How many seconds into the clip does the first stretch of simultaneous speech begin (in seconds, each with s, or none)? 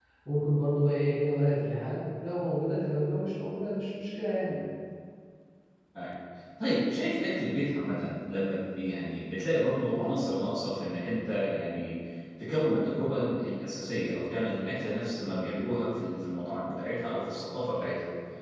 none